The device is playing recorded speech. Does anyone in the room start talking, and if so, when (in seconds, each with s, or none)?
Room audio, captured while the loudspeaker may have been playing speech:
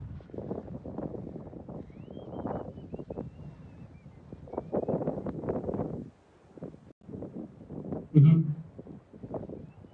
8.1 s